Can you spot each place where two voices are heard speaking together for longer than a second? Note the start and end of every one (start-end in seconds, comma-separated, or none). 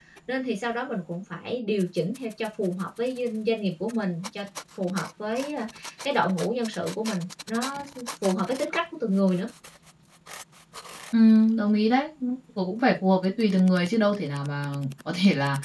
none